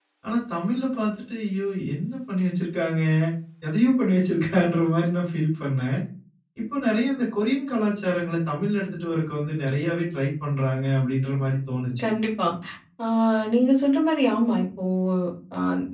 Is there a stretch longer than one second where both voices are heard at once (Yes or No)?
No